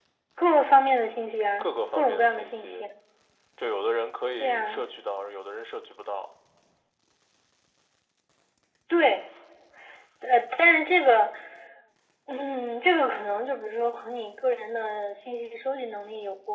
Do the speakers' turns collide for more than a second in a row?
Yes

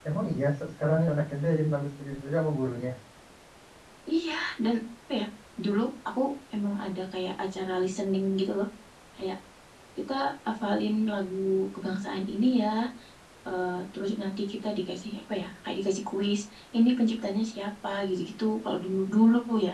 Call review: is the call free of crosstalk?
Yes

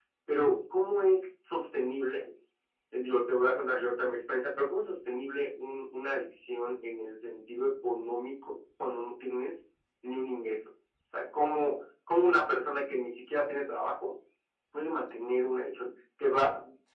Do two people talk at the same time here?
No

